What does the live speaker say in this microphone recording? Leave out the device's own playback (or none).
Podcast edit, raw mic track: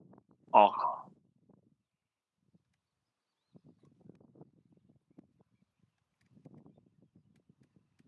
อ๋อ